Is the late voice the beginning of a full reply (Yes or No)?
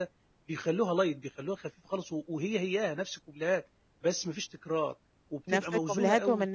Yes